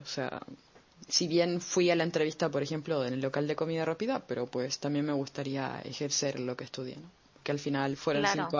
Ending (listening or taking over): listening